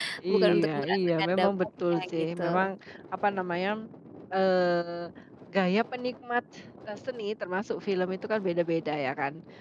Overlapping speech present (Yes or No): Yes